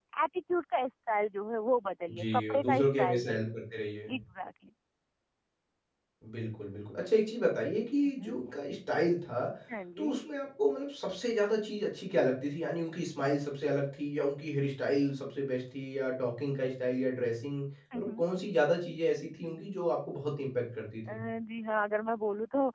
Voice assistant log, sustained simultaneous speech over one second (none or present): present